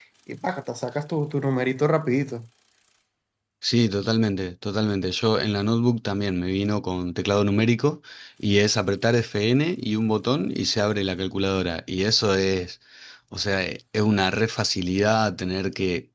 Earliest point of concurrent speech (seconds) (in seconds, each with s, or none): none